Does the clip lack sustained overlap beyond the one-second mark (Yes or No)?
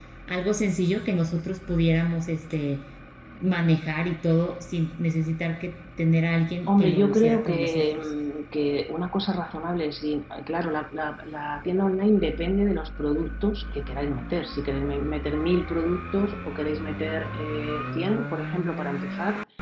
No